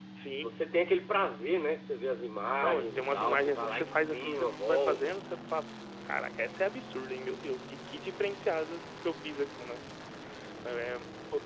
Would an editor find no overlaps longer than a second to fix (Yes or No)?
No